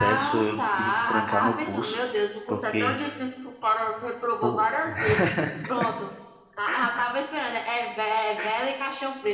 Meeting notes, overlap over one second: present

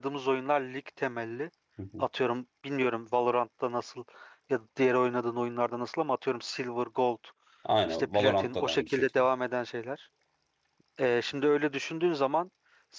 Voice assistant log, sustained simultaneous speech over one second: present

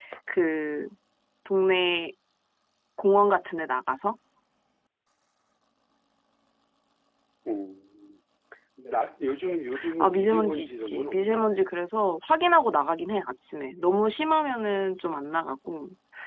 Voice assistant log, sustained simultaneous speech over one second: present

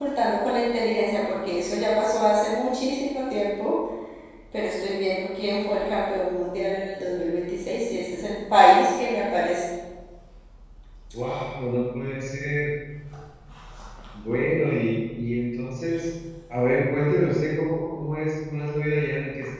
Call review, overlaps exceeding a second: none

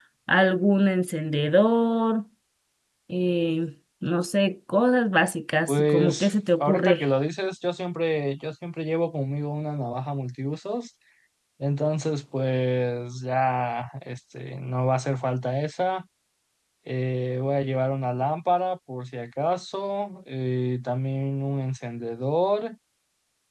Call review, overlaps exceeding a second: present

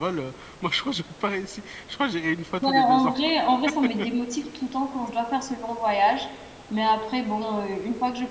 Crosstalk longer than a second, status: none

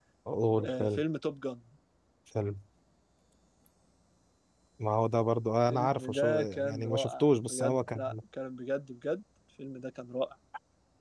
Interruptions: present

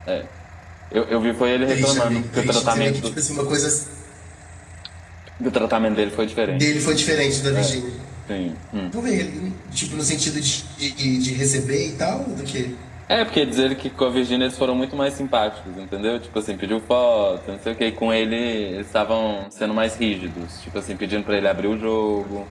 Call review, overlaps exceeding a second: present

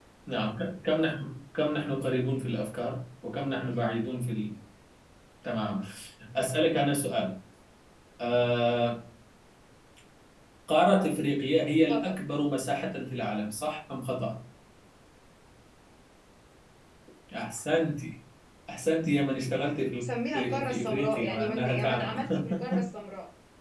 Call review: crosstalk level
present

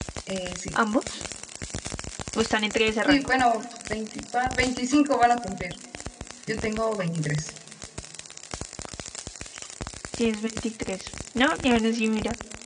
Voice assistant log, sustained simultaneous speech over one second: none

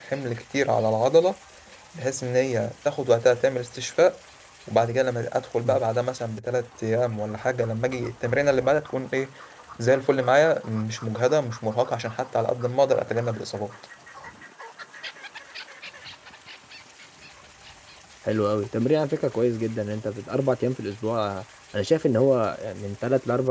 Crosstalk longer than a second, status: none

